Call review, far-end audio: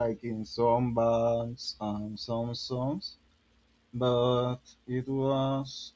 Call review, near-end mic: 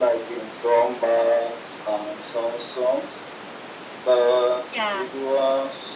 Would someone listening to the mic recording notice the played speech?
Yes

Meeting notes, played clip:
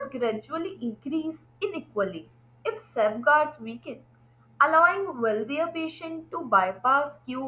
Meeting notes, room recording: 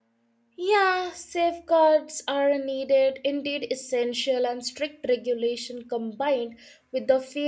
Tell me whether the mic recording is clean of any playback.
Yes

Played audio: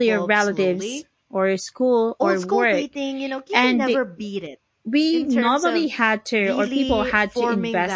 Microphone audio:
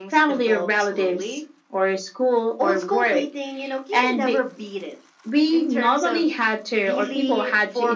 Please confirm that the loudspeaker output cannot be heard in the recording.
No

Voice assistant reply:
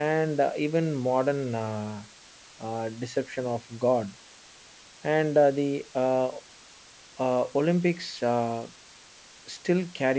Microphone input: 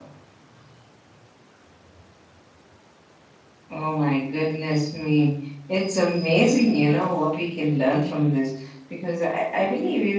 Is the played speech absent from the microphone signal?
Yes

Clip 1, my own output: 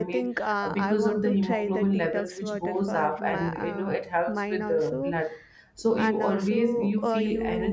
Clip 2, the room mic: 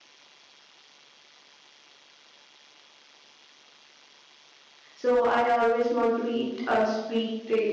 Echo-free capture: Yes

